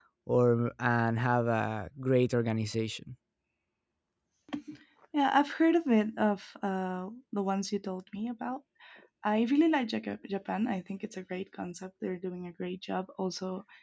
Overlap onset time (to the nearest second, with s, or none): none